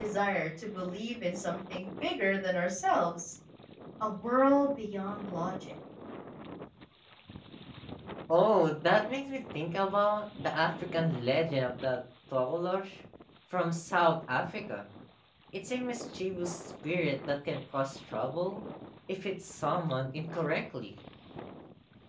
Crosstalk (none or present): none